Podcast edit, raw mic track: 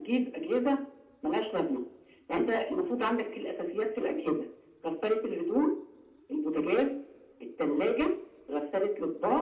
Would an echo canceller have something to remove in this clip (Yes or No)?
Yes